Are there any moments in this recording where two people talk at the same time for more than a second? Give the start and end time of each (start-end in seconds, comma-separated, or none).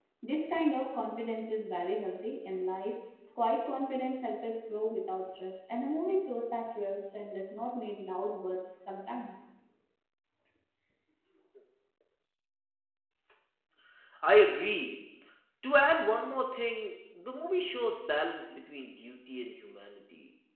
none